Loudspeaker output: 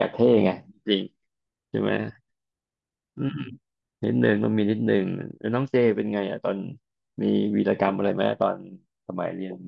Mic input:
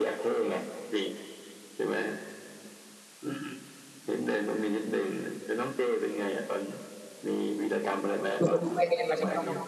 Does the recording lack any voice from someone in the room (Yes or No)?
No